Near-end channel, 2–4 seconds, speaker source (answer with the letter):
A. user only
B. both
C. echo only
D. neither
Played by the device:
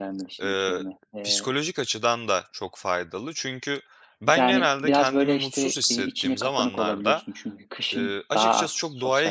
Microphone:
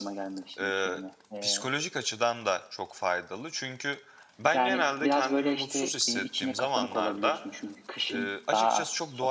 C